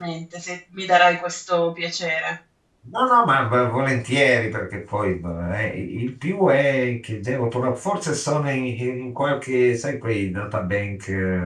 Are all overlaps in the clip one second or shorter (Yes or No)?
Yes